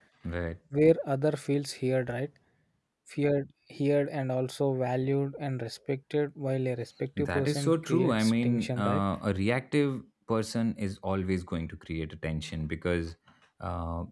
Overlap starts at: 7 s

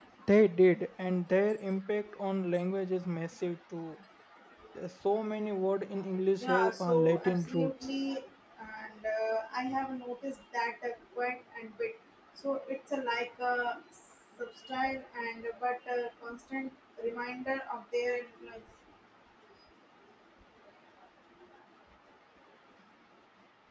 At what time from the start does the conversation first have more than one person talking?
6 s

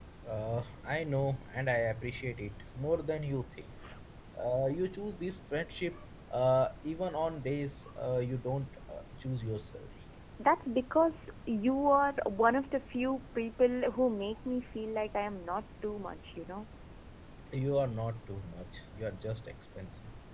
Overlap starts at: none

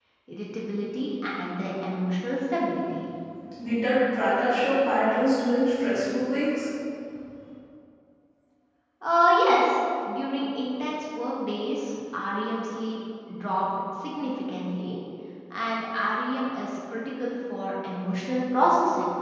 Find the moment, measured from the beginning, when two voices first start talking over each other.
none

